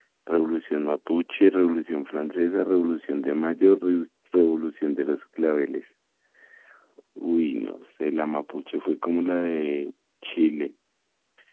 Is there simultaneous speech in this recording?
No

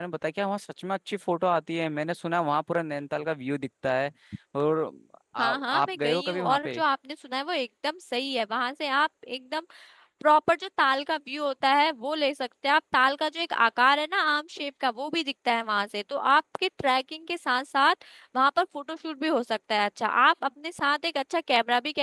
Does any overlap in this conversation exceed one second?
Yes, from 5.4 s

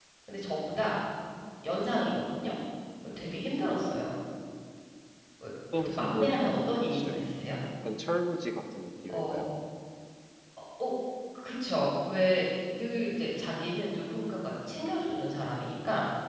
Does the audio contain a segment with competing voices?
Yes, from 5.8 s

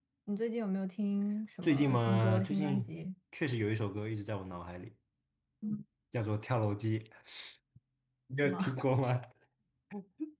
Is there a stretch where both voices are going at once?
Yes, from 1.6 s

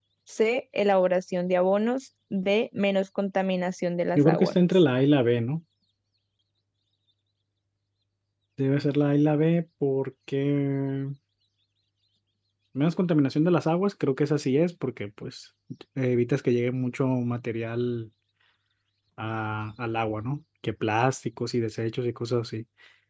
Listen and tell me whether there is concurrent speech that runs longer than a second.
No

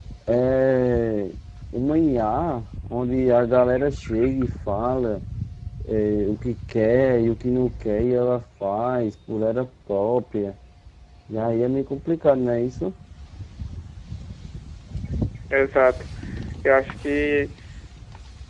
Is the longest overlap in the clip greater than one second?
No

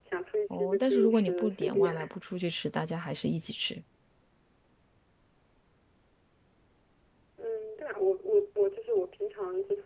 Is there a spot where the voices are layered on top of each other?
Yes, from 0.6 s

